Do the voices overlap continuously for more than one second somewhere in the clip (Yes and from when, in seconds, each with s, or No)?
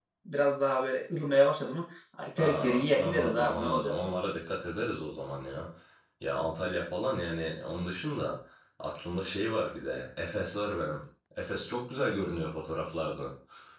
Yes, from 2.4 s